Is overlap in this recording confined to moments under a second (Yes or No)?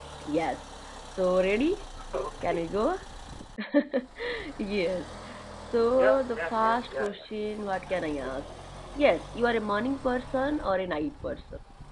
No